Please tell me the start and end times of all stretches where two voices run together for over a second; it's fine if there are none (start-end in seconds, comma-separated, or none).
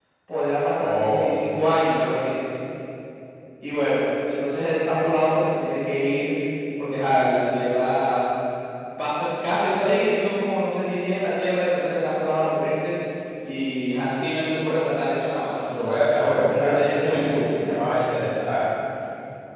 15.7-17.4